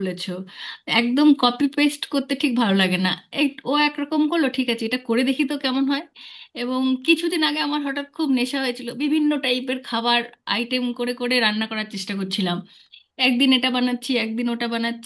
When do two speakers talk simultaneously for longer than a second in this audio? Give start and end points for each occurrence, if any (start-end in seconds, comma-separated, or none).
none